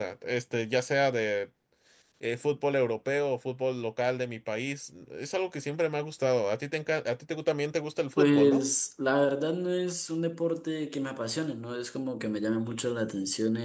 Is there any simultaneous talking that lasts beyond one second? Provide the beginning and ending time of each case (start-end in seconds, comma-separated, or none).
none